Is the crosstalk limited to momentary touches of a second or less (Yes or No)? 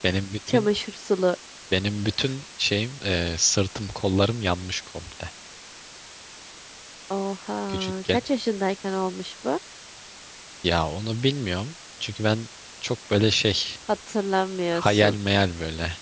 Yes